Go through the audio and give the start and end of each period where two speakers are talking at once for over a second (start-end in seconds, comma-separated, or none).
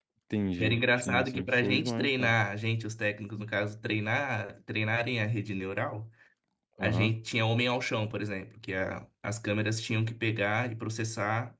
0.6-2.3